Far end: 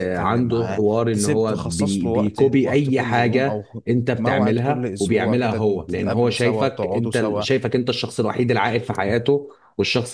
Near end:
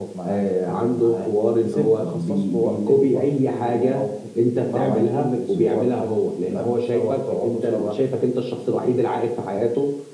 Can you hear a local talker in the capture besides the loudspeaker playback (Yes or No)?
No